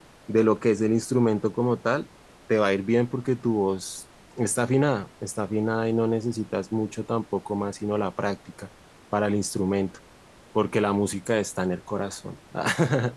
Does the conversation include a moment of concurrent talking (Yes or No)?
No